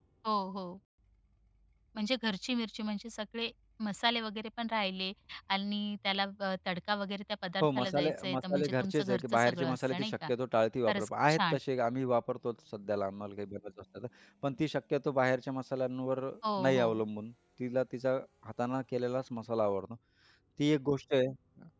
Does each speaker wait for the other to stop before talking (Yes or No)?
No